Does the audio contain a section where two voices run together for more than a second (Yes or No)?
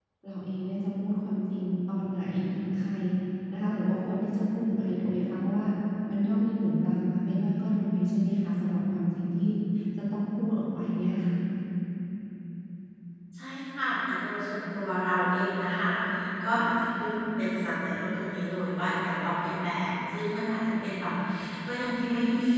No